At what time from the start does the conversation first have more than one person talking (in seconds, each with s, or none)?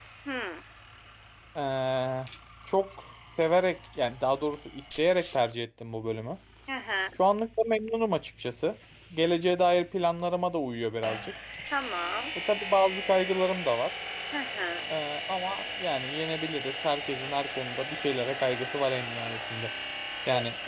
none